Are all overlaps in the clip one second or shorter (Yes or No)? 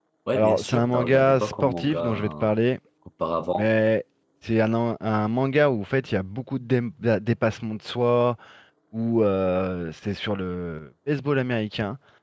No